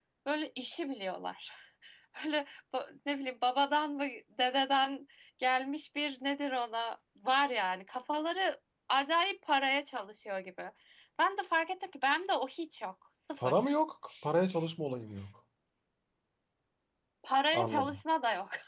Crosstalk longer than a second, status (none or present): none